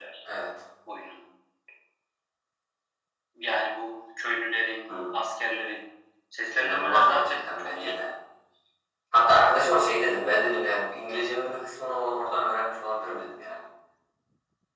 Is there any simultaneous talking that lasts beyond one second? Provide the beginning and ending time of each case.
6.5-8.0

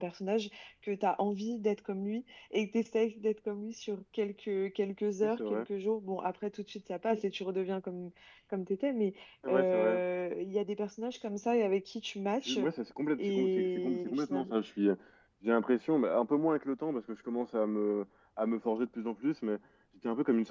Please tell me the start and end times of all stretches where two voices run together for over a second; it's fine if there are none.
13.2-14.5

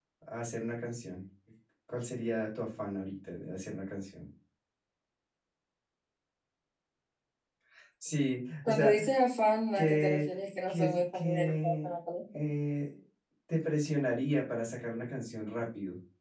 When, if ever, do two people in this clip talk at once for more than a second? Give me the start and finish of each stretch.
10.7-11.9

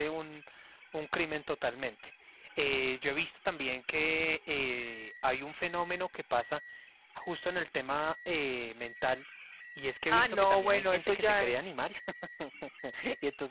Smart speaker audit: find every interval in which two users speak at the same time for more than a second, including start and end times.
10.1-11.8

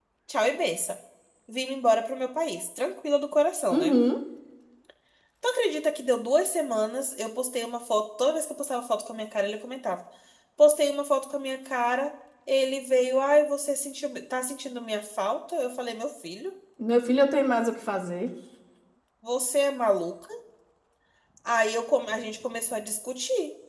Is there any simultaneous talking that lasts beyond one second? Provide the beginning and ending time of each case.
none

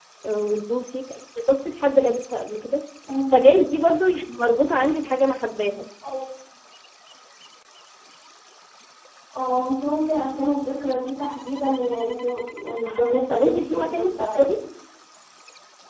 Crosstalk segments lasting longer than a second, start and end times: 12.8-14.5

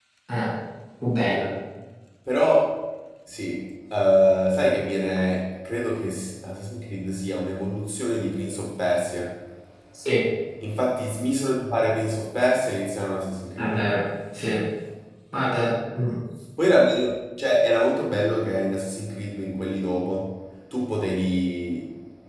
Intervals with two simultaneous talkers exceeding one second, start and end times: none

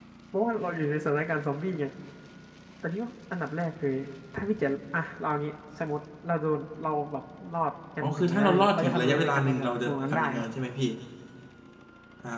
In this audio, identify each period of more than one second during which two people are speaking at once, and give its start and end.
8.0-10.4

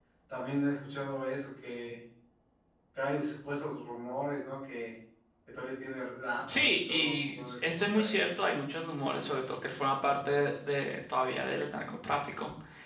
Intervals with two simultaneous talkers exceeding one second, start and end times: 6.5-8.3

